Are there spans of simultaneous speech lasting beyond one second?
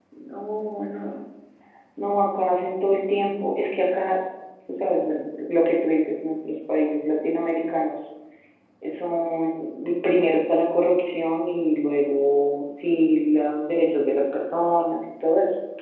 No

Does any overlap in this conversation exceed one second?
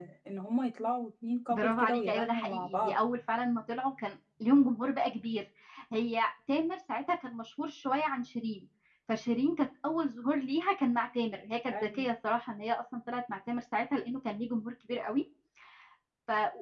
Yes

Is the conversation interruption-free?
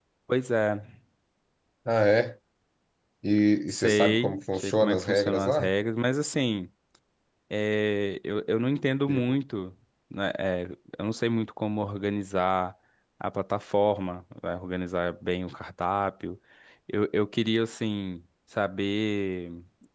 No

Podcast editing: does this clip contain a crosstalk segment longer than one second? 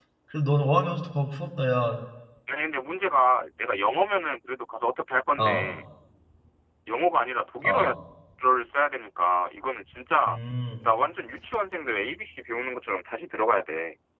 No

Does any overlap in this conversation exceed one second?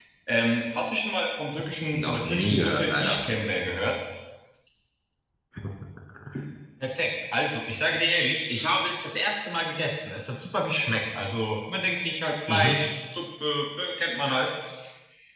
Yes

